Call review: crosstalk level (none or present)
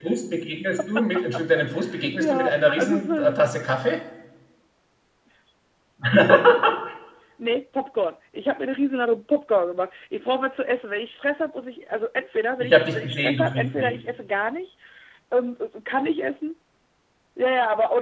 present